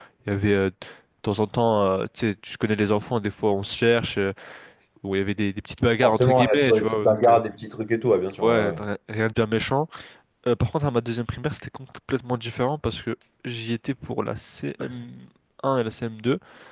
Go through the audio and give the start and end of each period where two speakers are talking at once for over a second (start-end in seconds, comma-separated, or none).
6.0-7.4